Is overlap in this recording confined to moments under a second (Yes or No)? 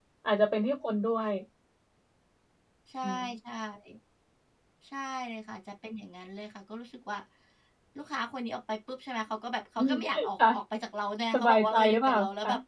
No